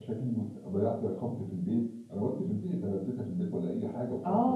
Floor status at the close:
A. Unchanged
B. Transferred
B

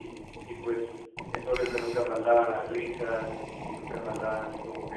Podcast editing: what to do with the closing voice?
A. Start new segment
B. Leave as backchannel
B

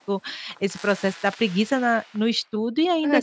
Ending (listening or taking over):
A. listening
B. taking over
B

